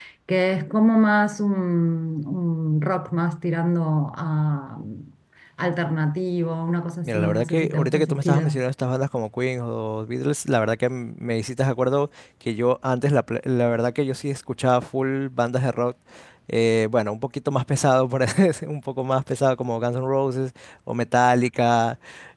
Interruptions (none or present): present